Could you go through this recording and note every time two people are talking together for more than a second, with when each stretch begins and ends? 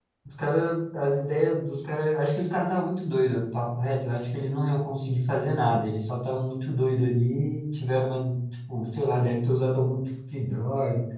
none

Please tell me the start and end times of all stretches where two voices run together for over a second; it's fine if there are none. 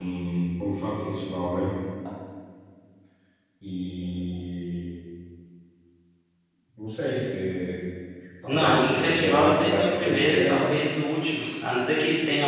8.5-10.6

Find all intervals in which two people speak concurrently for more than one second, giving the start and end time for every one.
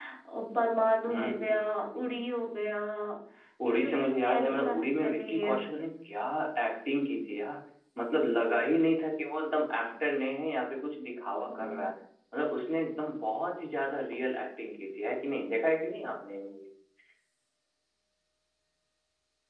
3.6-5.5

